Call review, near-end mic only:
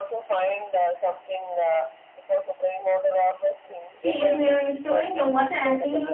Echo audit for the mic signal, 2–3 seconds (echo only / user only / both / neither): echo only